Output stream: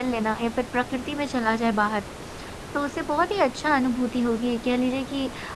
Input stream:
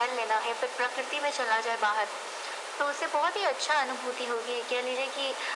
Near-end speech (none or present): none